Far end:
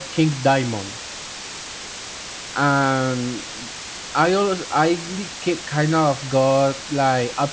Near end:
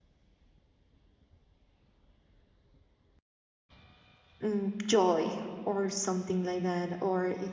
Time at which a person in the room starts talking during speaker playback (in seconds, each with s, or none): 4.4 s